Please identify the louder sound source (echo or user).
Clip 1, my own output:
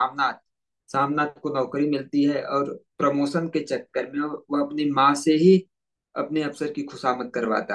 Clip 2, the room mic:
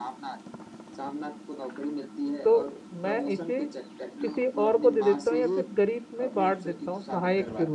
user